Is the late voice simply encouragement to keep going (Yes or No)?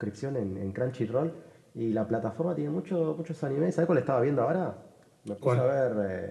Yes